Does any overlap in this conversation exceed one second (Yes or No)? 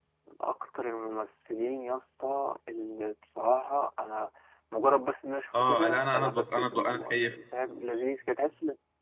Yes